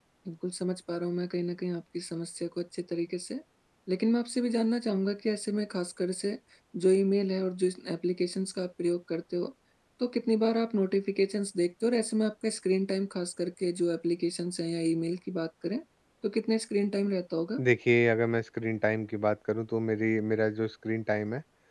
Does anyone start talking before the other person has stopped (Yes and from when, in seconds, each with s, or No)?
No